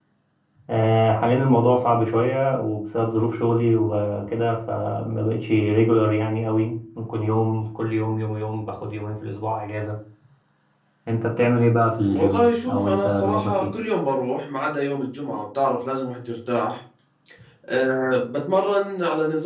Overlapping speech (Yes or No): Yes